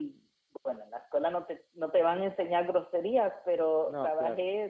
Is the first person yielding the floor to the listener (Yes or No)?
No